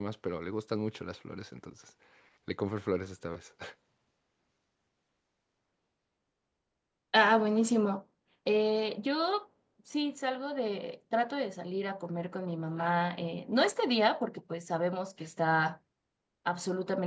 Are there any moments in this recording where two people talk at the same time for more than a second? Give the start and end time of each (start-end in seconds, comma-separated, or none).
none